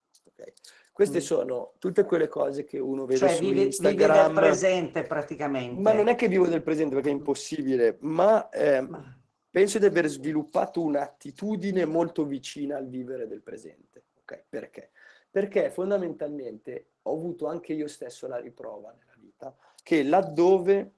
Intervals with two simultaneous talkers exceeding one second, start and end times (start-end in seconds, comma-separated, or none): 3.1-4.6